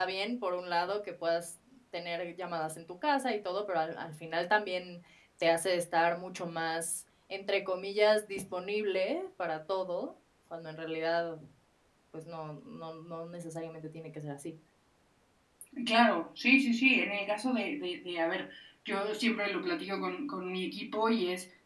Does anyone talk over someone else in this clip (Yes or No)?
No